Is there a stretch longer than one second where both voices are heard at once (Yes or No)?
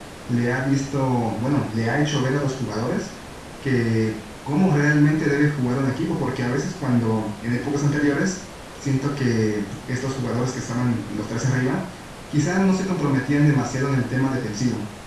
No